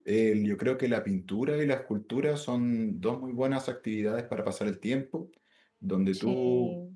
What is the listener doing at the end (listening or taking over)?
listening